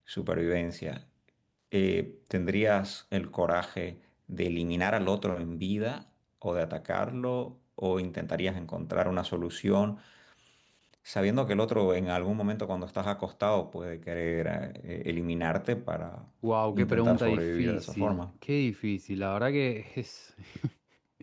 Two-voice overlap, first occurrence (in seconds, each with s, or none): 16.7 s